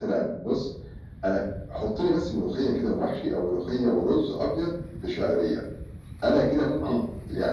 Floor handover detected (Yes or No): No